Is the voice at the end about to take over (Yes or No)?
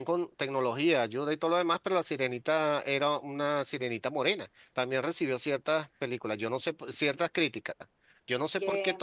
No